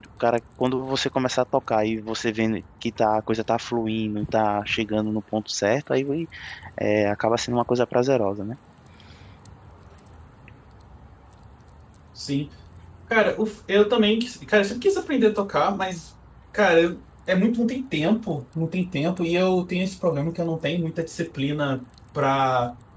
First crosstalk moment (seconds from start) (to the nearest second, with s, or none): none